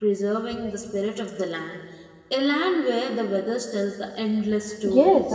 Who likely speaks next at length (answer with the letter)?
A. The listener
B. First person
A